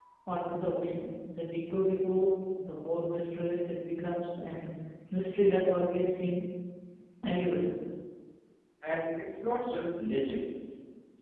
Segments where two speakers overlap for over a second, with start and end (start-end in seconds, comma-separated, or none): none